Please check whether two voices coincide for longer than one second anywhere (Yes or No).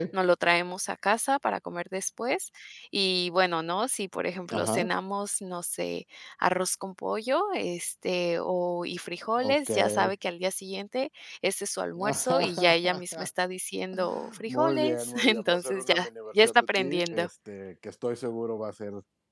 Yes